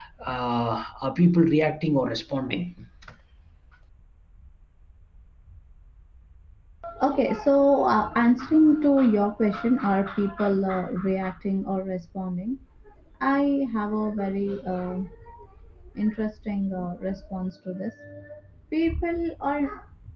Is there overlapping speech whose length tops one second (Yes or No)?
No